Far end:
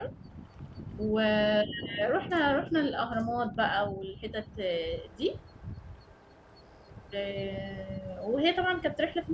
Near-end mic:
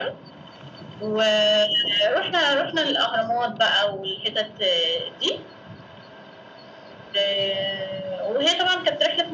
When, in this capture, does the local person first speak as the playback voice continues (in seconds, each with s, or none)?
none